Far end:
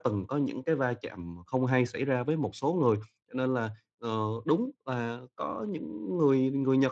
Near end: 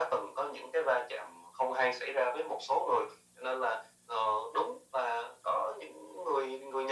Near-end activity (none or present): none